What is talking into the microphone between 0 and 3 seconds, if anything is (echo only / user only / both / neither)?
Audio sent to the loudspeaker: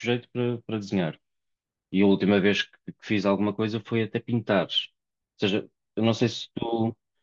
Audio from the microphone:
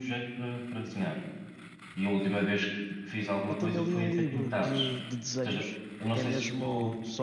echo only